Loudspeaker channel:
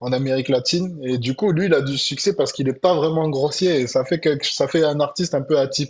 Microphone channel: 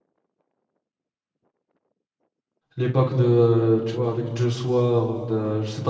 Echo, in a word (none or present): none